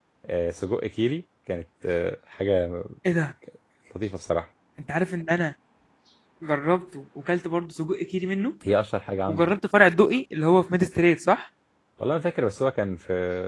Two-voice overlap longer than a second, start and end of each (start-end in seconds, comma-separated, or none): none